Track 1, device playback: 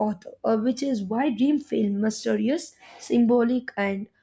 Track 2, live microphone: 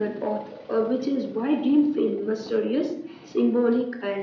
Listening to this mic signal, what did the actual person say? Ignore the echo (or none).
none